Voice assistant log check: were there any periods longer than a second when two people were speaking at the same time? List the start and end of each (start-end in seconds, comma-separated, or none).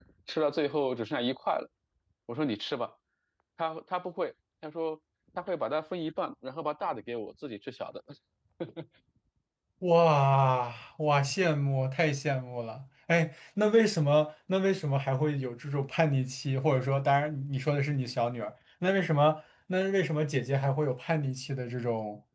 none